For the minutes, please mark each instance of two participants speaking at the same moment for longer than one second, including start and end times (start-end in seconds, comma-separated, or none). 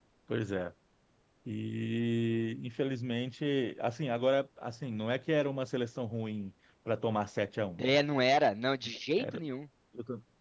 none